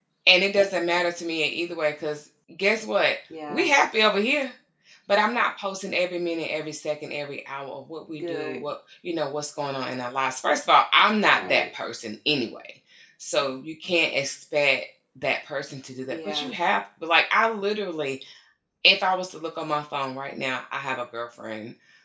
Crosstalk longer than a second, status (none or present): none